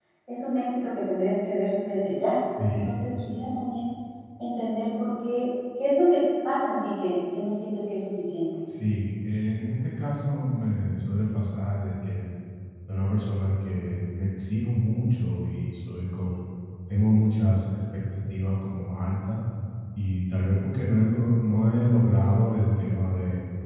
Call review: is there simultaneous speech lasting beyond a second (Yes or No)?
No